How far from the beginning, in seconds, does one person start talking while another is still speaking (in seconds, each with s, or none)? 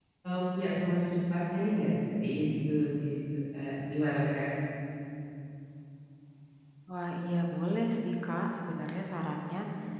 none